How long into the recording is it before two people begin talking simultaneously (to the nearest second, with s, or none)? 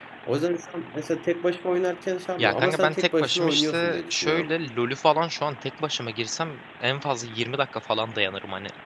2 s